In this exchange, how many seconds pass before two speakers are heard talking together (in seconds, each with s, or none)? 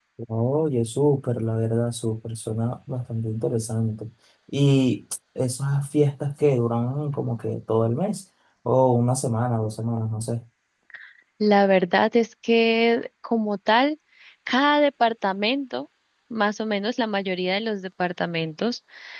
none